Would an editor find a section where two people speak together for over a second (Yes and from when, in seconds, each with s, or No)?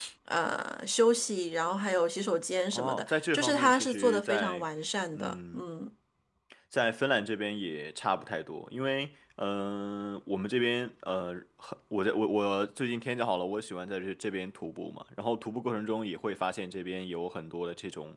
Yes, from 2.7 s